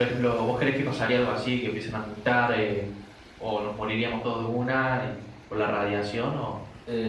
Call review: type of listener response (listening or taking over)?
taking over